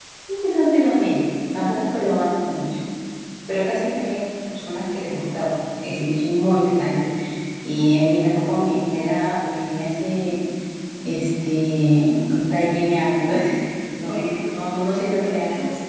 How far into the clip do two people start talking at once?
14.0 s

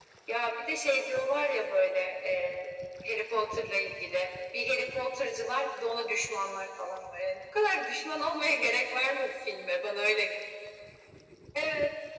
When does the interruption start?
none

